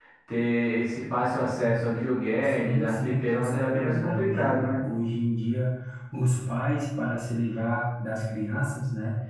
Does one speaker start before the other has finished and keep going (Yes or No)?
Yes